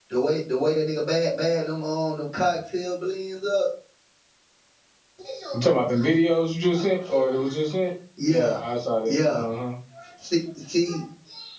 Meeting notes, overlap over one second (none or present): none